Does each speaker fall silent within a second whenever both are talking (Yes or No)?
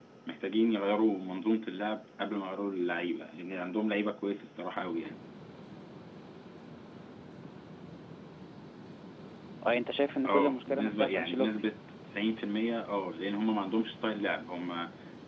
No